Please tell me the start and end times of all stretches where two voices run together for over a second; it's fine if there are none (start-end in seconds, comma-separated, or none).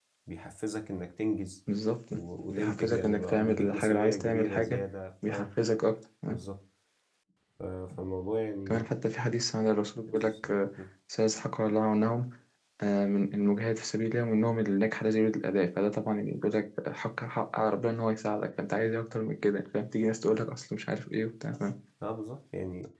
2.5-4.8